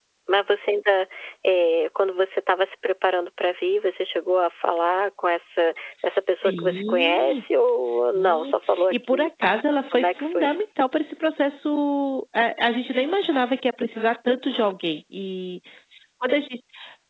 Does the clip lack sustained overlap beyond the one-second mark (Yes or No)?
No